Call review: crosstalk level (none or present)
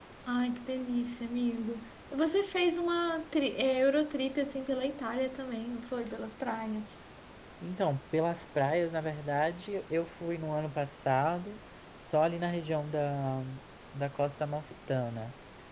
none